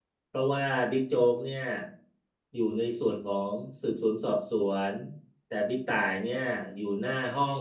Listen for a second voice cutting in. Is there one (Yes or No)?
No